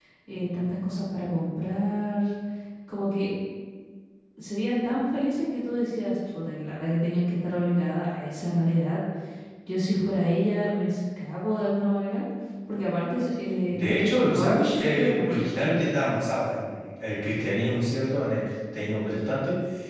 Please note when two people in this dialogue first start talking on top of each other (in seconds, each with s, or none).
13.7 s